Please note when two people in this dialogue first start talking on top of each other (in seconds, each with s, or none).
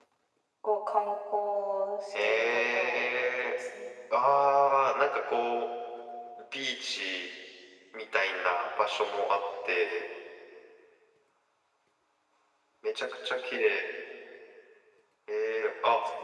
2.1 s